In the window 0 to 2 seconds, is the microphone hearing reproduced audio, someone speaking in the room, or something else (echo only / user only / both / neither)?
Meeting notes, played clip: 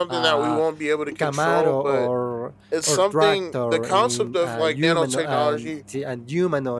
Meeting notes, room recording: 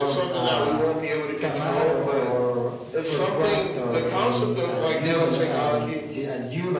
echo only